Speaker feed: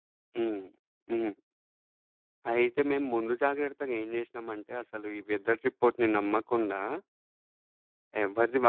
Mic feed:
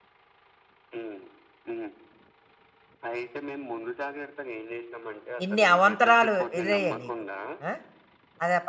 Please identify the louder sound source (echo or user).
user